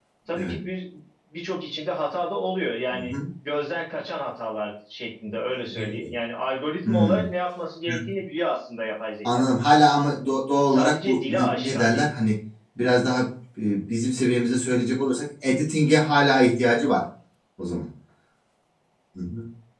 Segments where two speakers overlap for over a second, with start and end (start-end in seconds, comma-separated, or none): 10.7-12.1